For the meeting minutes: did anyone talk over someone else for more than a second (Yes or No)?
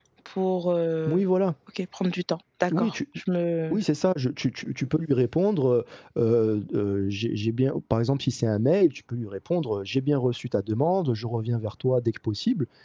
No